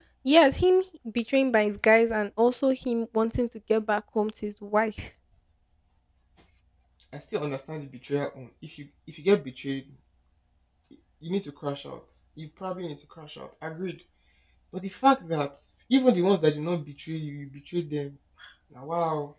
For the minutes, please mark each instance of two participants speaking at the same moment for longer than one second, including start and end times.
none

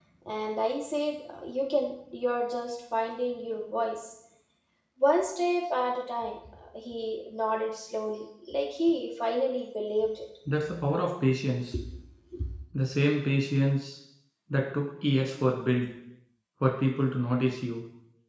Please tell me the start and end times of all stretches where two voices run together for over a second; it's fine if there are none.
none

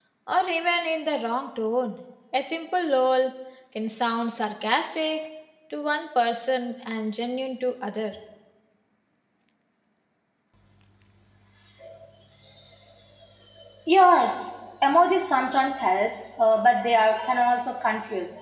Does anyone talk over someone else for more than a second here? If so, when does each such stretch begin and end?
none

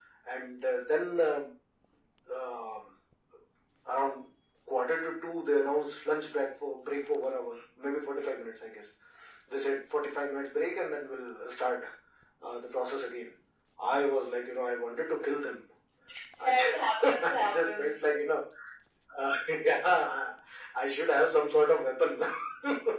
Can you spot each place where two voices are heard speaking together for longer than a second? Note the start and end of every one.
16.4-17.9

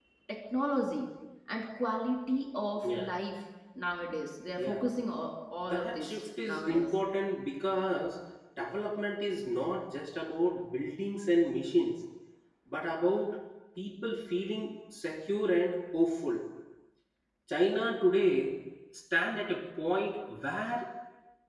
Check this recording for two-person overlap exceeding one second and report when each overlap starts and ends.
5.6-6.9

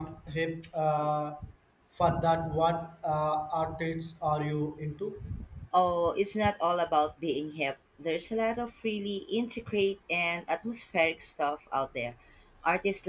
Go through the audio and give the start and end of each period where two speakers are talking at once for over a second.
none

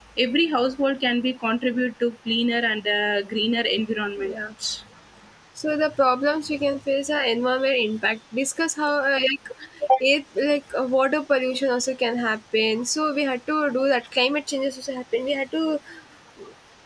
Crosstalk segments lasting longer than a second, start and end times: none

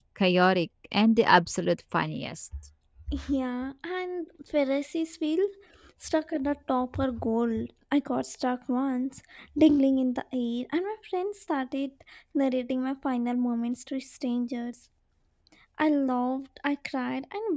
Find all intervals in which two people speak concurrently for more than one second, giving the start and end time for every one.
none

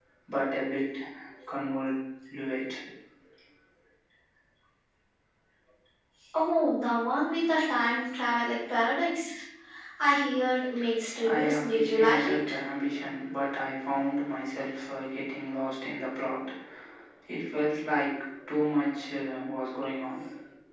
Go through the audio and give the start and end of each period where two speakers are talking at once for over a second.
11.3-12.5

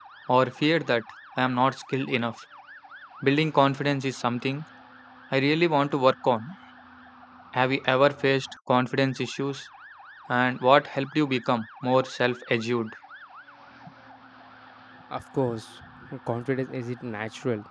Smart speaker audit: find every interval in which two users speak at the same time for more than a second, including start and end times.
none

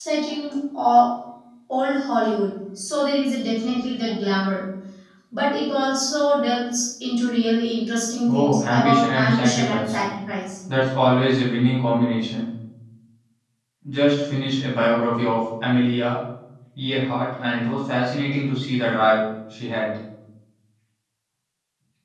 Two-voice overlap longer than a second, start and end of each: 8.3-10.0

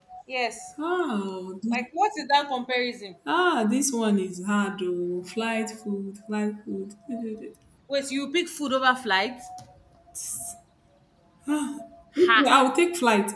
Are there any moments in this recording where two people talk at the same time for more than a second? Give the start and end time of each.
none

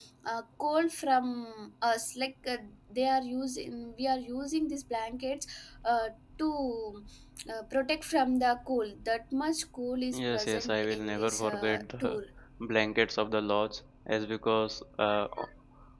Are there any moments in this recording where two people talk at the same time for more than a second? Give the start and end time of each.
10.1-12.2

